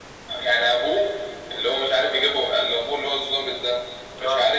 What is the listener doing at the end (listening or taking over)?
listening